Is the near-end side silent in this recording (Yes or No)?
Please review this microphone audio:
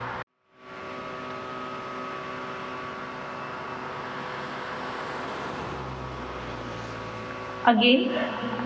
No